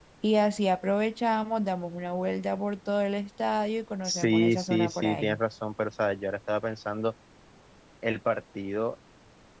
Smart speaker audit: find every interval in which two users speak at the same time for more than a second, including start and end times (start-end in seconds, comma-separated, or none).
4.0-5.4